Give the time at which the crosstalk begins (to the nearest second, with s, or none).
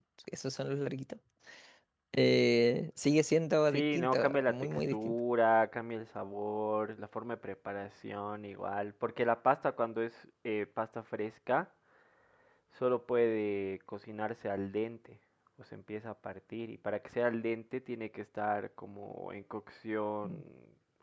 4 s